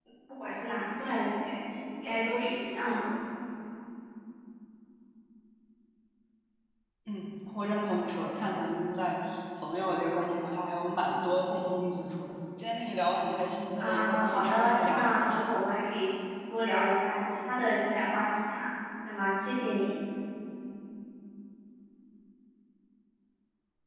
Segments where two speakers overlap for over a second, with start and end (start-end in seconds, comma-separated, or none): 13.8-15.0